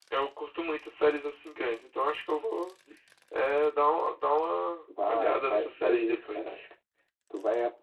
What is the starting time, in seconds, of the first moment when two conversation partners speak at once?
5 s

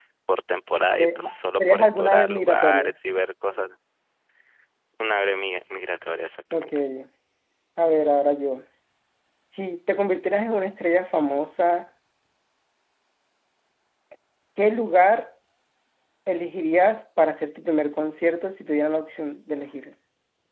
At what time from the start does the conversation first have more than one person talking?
1 s

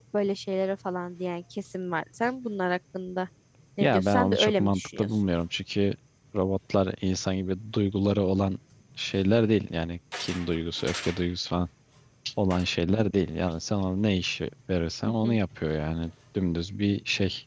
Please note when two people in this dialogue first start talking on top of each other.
4 s

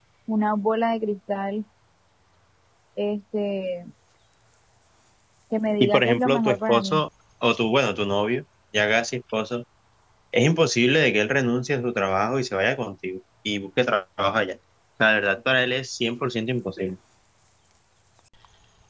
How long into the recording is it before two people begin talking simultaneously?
6 s

